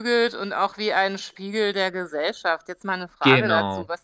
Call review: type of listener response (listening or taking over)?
listening